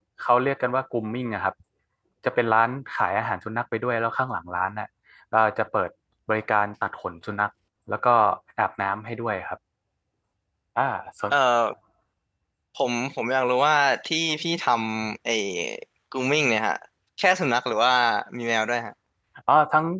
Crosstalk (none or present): none